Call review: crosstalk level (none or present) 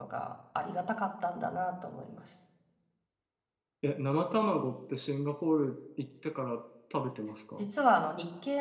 none